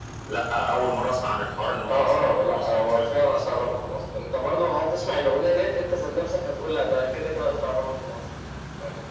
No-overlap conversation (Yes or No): No